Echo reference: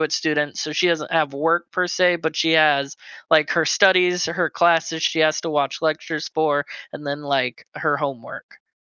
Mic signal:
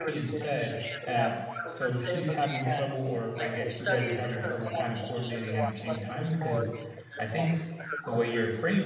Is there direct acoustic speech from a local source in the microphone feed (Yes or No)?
Yes